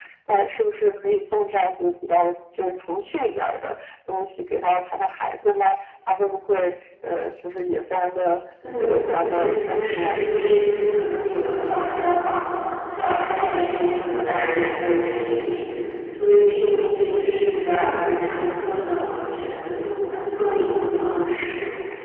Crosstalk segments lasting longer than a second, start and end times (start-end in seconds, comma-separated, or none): 8.8-10.2